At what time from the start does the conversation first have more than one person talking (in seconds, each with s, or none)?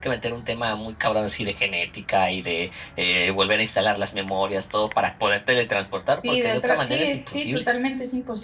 6.2 s